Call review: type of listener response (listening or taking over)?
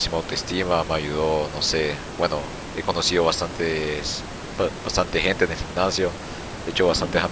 listening